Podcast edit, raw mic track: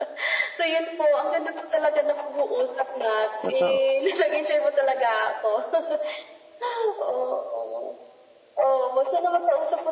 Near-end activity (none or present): present